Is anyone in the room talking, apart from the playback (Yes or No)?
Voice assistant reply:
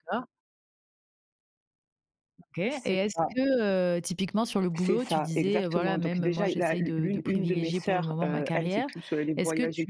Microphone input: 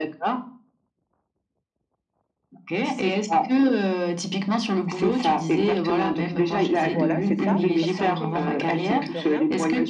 Yes